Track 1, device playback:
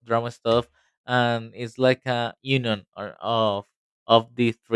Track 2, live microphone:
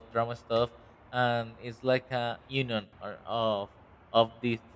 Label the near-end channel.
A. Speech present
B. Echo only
B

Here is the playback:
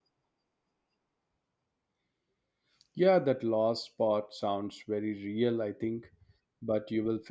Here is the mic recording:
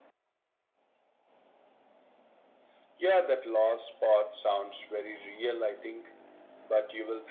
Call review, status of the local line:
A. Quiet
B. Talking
A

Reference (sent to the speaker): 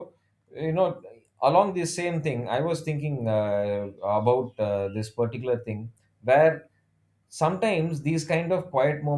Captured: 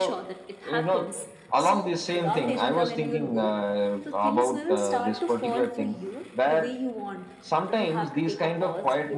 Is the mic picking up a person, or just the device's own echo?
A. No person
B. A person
B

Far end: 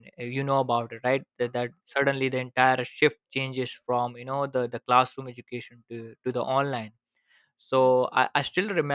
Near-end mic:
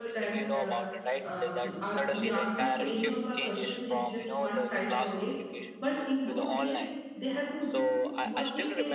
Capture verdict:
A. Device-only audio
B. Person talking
B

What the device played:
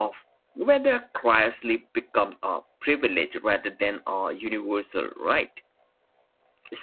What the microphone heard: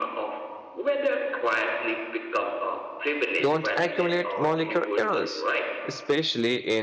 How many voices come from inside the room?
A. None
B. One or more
B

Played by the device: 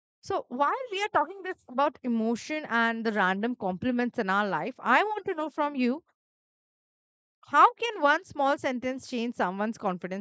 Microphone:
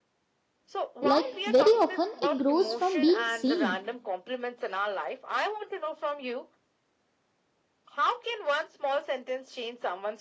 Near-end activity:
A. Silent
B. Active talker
B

